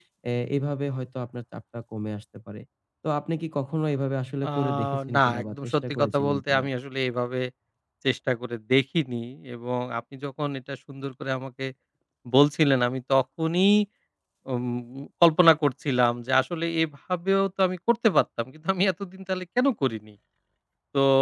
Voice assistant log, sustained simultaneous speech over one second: present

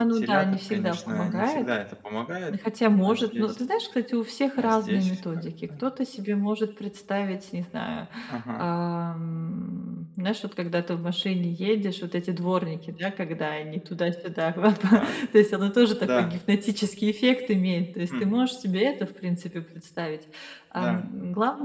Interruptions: present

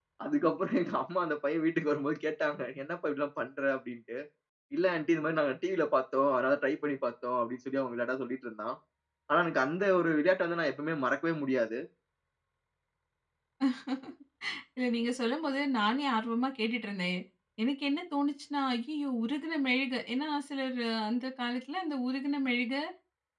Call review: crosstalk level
none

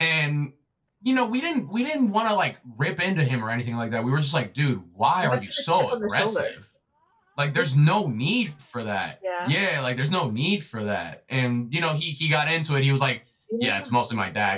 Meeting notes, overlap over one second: present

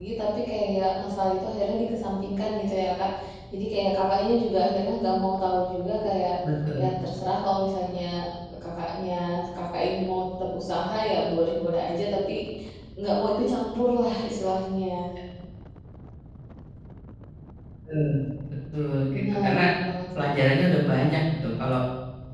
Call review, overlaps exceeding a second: none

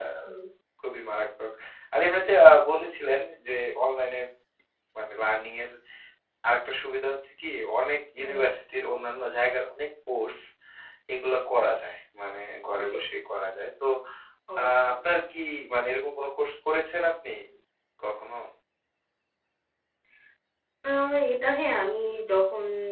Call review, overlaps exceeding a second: none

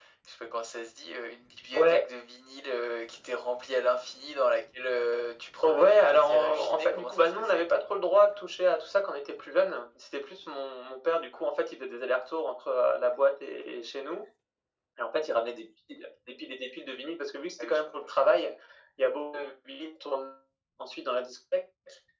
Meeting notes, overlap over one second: present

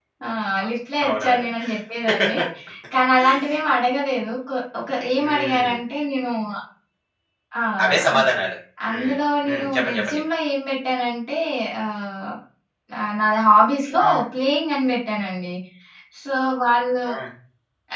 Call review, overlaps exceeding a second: present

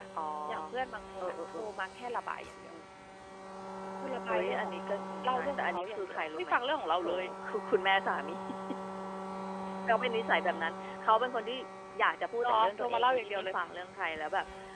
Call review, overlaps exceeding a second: present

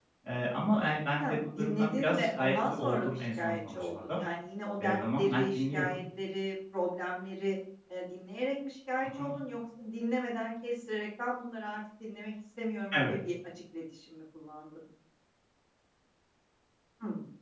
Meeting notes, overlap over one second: present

